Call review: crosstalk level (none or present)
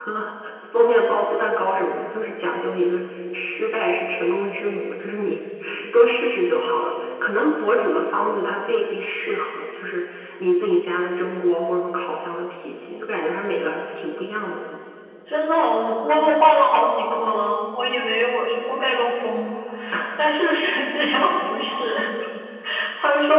none